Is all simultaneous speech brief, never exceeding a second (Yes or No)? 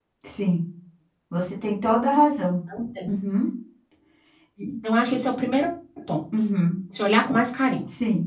Yes